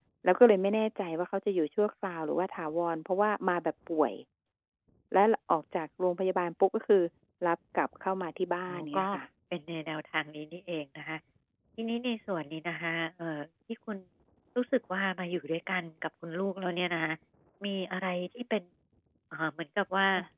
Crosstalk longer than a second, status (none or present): none